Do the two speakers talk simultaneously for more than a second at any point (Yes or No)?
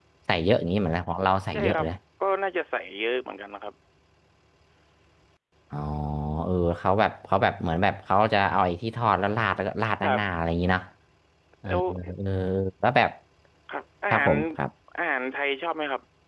No